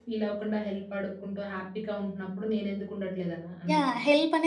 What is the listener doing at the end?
taking over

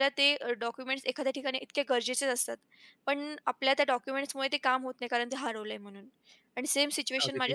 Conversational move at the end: listening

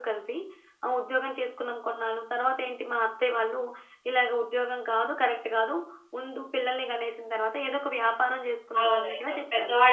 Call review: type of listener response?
taking over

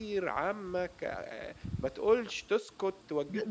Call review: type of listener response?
taking over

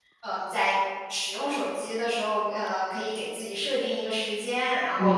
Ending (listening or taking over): listening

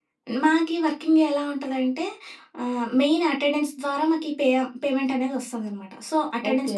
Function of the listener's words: listening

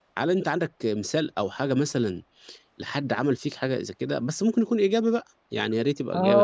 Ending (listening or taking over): taking over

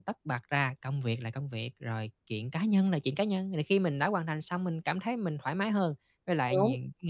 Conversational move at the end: listening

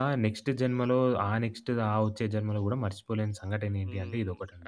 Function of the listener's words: taking over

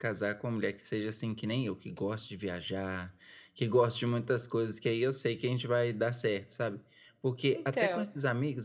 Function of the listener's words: listening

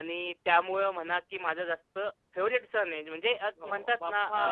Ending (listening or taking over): listening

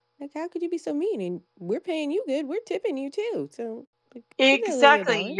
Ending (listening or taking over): taking over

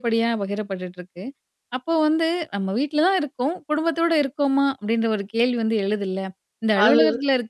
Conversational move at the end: listening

